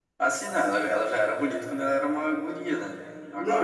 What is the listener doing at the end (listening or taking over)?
taking over